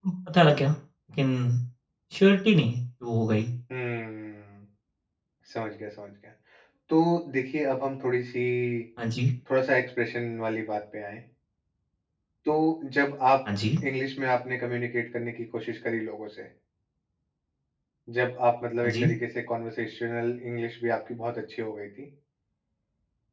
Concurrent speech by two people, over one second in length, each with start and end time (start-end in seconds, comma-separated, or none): none